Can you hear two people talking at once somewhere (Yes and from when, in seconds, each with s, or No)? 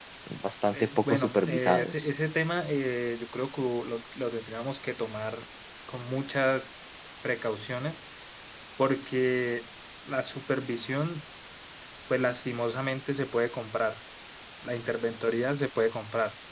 Yes, from 0.7 s